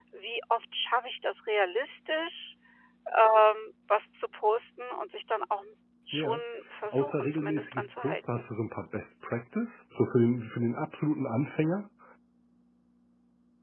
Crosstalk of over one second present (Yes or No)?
Yes